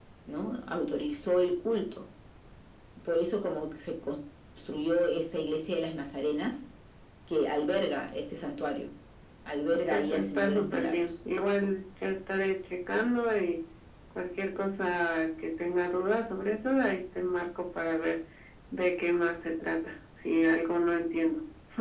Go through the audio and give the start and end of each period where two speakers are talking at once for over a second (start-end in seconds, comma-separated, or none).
9.9-11.1